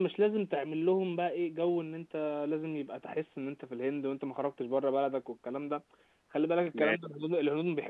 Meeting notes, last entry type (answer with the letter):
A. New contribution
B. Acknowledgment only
B